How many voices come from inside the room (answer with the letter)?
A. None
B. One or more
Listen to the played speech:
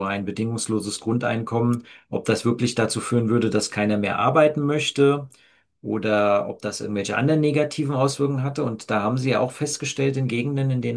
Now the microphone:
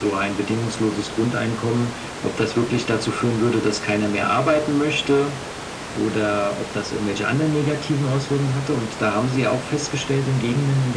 A